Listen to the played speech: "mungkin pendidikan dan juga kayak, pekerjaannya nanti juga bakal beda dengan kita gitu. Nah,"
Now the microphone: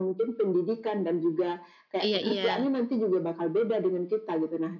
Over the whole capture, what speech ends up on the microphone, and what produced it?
both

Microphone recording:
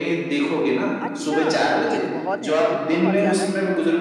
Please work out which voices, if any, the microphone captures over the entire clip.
both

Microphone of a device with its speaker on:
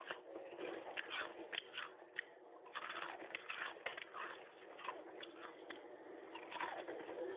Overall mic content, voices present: neither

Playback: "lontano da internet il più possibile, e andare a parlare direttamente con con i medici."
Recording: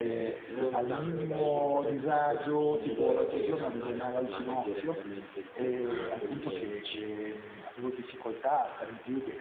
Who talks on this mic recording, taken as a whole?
both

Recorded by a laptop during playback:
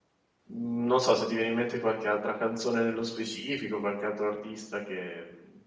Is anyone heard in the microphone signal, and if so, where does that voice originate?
user only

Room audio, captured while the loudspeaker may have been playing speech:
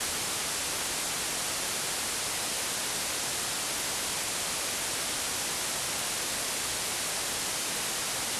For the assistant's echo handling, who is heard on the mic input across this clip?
neither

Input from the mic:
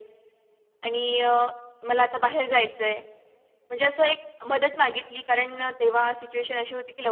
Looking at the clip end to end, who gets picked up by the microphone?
echo only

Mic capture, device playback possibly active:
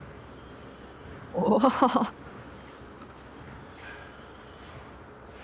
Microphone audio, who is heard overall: user only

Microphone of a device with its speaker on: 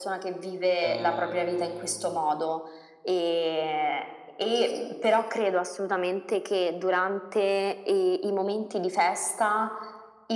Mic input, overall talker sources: both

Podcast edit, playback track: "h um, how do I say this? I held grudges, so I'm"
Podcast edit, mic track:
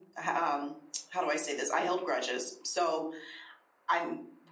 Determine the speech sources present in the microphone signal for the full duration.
echo only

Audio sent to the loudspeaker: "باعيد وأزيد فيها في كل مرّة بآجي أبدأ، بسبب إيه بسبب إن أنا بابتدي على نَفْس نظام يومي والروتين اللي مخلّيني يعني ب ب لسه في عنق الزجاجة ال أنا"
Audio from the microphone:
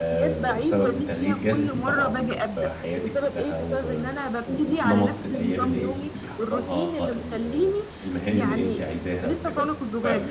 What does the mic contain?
both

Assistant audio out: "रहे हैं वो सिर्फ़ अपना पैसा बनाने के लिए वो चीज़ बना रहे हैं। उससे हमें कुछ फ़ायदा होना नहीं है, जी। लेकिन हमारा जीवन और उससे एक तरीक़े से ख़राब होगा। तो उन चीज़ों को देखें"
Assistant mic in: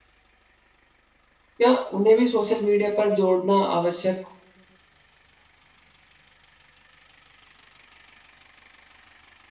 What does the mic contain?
user only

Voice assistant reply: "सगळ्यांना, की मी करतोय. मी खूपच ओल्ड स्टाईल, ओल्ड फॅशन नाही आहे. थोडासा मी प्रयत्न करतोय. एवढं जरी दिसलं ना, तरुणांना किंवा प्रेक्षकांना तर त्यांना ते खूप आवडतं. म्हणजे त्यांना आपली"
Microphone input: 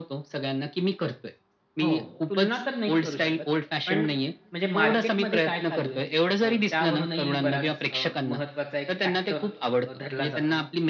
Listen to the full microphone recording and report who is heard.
both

